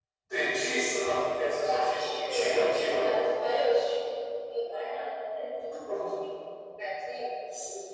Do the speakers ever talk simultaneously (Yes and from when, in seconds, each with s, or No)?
Yes, from 1.6 s